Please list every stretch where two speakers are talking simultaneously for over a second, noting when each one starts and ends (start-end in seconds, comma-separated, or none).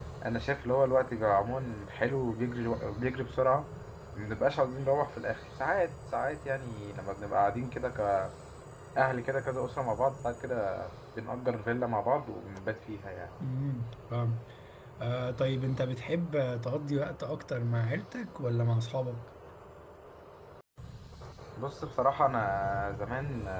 none